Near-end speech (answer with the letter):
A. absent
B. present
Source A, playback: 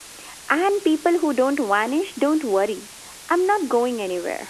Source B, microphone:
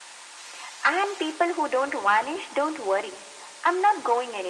A